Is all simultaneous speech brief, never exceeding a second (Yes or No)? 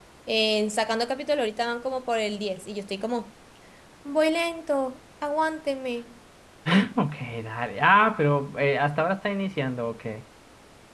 Yes